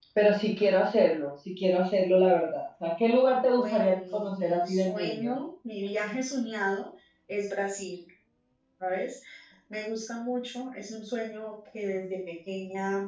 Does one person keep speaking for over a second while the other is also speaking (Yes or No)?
Yes